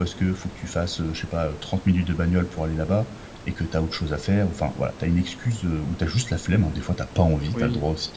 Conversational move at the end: taking over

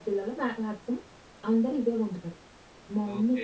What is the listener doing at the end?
taking over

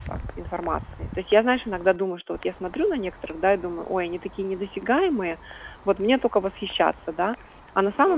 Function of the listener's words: listening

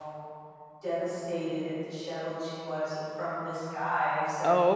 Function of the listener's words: listening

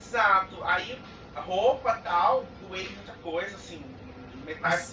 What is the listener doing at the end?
listening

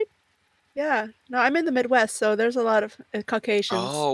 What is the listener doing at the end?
taking over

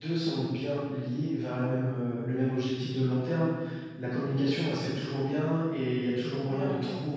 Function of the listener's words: listening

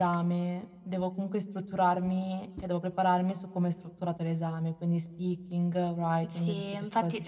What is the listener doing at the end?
taking over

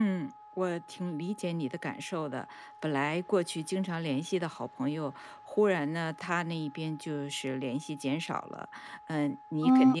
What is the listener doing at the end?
listening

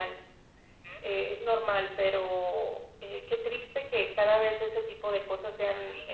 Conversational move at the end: taking over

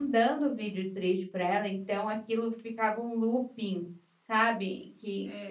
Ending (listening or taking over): taking over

